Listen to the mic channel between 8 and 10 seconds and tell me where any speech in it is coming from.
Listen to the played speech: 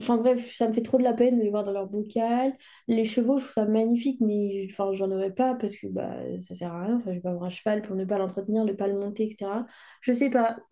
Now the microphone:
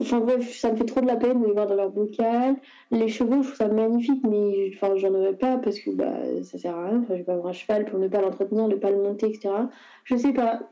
echo only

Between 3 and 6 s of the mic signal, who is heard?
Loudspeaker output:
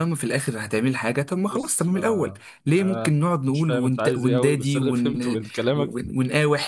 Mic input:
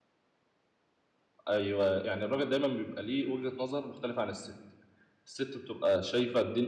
user only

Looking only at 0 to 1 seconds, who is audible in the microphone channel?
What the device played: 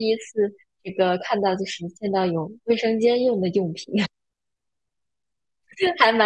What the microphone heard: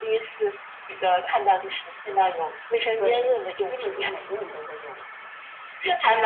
echo only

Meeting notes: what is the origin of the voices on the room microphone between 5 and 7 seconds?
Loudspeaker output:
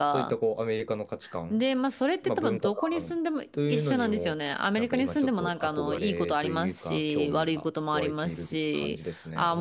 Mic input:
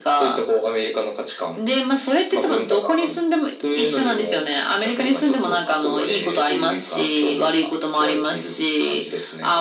echo only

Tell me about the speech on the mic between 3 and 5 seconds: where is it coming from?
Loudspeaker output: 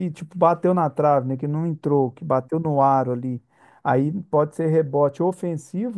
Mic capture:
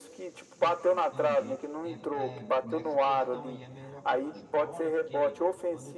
both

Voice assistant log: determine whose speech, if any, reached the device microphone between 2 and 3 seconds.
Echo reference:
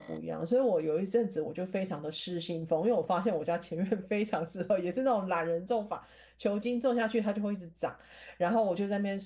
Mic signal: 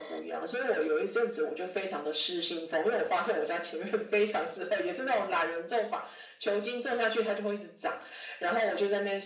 echo only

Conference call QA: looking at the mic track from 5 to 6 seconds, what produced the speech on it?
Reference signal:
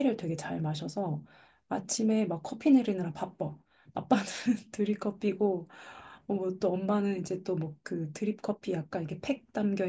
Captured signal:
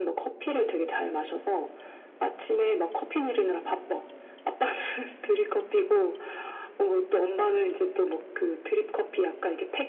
echo only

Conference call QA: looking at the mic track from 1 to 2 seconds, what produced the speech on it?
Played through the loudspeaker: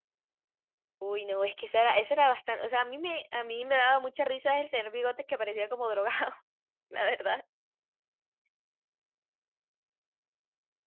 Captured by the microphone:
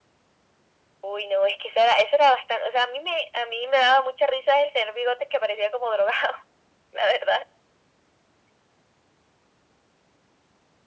echo only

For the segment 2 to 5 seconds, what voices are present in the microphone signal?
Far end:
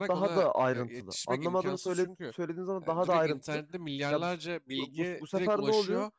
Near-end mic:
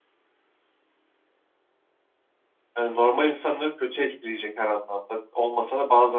user only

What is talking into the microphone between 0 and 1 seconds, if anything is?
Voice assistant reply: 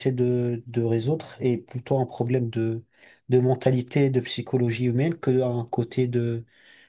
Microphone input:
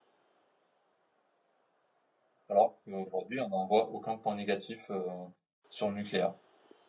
neither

